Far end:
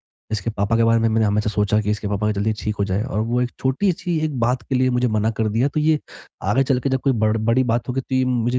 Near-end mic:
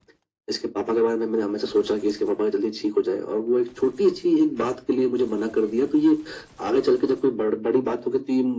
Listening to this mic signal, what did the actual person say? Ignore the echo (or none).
none